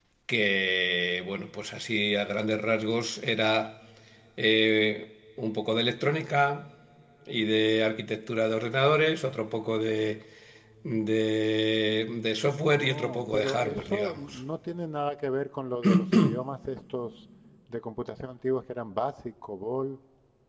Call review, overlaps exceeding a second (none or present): present